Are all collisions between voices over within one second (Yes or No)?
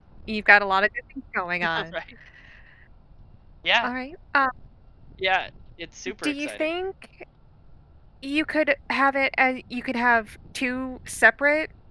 Yes